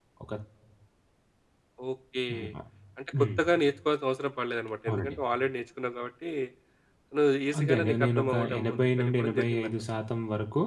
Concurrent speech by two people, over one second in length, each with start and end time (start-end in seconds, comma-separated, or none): 7.6-9.7